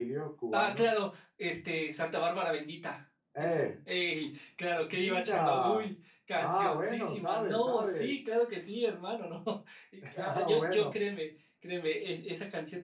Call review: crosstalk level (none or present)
present